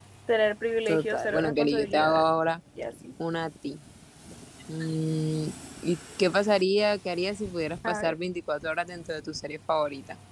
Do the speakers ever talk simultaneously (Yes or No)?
Yes